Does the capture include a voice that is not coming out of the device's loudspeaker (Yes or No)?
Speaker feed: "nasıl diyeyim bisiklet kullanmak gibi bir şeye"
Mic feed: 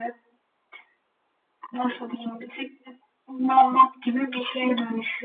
No